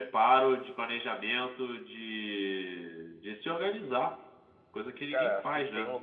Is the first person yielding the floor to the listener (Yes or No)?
Yes